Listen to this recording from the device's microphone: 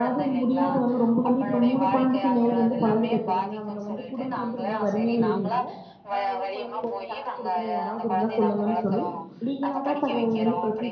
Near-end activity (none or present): present